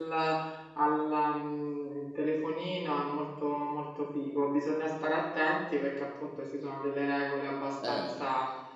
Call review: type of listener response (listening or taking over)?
listening